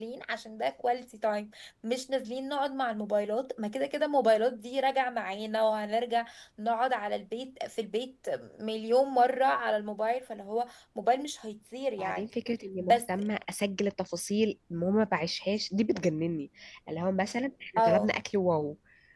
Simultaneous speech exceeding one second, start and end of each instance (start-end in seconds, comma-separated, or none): none